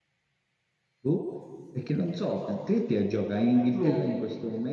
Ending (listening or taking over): listening